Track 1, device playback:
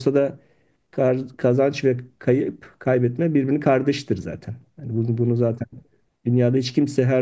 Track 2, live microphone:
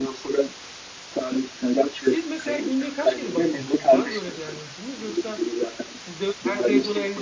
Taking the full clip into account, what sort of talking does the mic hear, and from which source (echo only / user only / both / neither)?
both